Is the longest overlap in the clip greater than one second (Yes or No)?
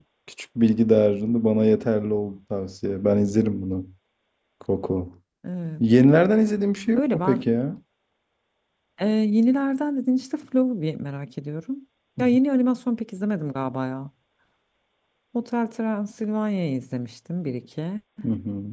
No